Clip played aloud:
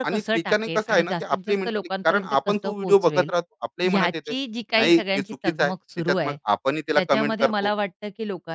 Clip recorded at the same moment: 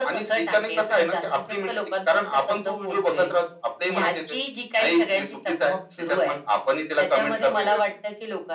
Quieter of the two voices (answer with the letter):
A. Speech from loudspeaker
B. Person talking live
B